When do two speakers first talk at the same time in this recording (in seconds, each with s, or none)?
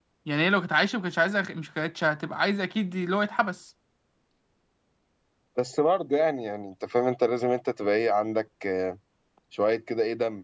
none